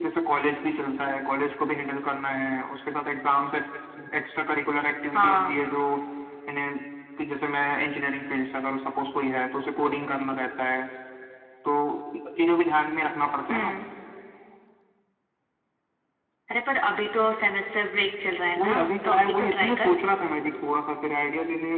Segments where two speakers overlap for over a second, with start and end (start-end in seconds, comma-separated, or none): 18.6-19.9